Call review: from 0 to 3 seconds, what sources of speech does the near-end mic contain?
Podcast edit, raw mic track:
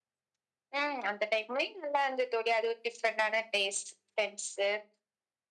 echo only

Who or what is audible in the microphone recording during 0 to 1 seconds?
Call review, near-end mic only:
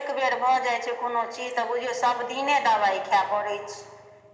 echo only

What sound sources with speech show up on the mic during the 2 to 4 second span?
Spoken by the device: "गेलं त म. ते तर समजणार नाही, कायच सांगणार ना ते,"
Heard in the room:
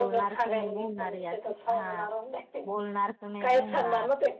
both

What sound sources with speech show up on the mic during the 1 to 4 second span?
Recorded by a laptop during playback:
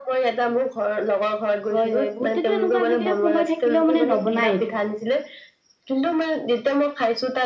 both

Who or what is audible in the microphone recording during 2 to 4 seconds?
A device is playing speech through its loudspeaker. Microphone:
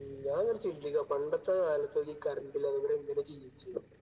echo only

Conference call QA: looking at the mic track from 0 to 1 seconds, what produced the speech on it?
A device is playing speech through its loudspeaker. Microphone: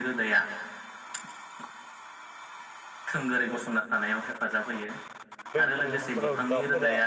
echo only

